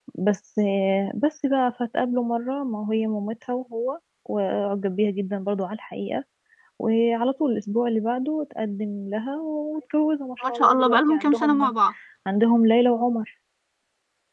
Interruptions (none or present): present